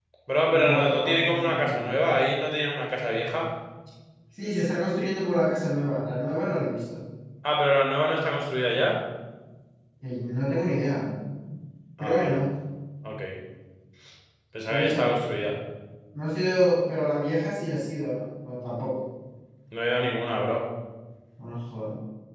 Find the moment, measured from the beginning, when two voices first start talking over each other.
0.5 s

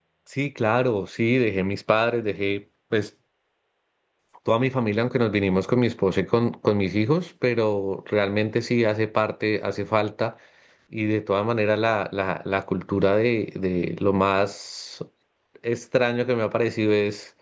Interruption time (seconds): none

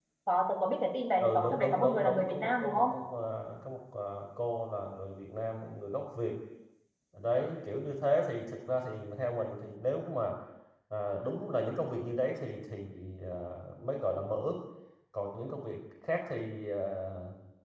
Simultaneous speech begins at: 1.2 s

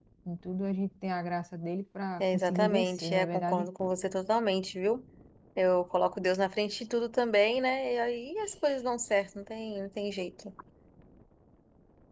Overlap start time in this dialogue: 2.2 s

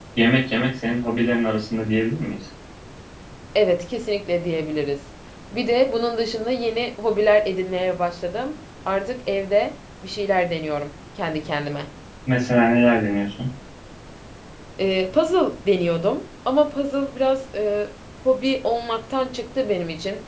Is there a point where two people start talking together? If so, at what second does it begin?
none

